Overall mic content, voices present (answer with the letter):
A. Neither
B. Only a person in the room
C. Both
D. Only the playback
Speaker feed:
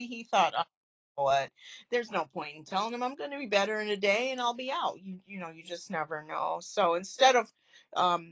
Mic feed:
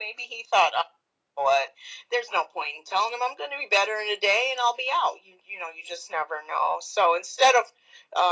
D